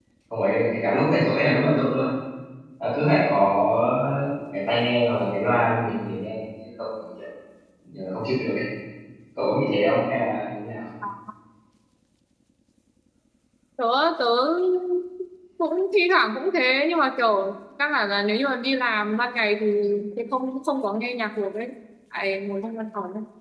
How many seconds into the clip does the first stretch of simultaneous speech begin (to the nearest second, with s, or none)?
none